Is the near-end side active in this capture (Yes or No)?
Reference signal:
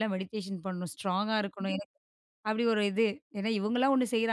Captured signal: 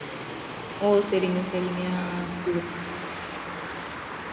Yes